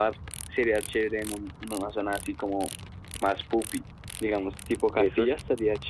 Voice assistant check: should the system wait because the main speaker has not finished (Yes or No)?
No